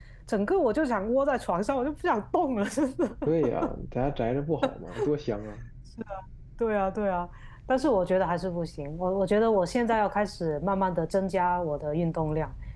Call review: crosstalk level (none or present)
none